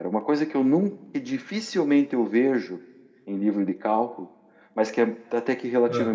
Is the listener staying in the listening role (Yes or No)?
Yes